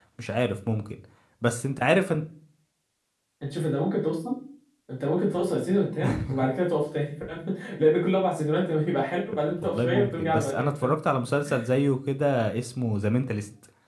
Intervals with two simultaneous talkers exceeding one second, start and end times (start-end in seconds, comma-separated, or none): 9.6-10.9